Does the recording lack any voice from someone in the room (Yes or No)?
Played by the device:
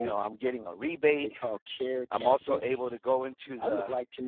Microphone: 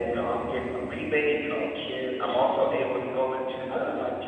Yes